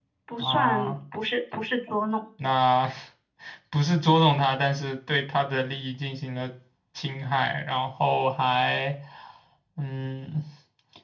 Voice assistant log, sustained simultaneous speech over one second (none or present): none